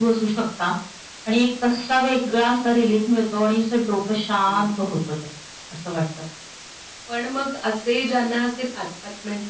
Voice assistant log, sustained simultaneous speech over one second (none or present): none